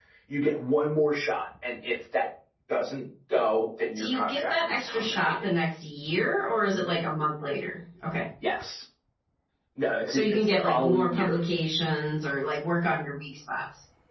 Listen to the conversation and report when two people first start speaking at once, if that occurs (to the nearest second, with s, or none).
4 s